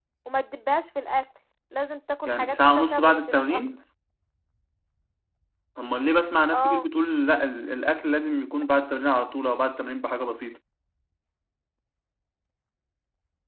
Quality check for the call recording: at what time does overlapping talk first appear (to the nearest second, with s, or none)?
2 s